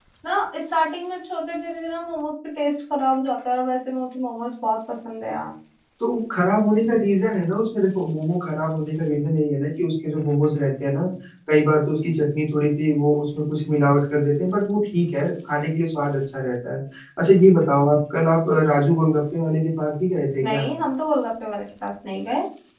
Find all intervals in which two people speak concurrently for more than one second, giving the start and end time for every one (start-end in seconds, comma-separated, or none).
none